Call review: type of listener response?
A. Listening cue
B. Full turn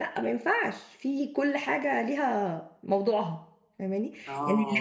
A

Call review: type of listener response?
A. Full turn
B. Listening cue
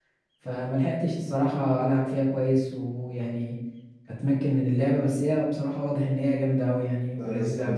A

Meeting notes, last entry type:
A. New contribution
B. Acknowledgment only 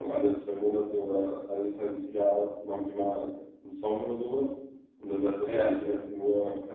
B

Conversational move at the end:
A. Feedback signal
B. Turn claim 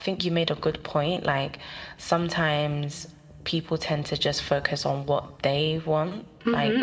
B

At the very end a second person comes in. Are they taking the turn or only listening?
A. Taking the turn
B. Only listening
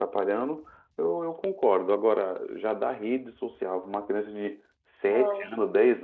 B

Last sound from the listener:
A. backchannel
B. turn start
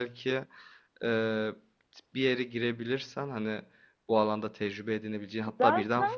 A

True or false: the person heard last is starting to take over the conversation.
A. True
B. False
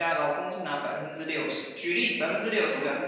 B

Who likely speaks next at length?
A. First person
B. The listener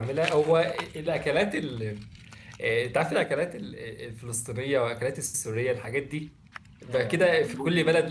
A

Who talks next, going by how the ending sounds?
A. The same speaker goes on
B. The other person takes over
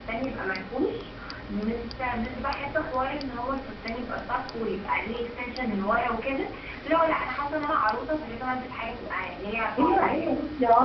B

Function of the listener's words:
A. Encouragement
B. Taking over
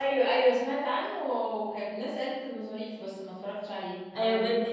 B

